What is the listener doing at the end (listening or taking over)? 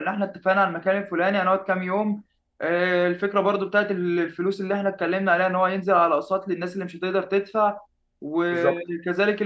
listening